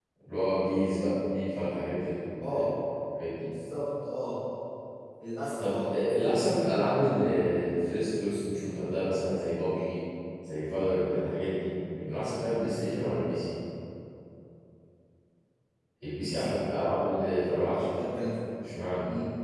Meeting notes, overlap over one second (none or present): none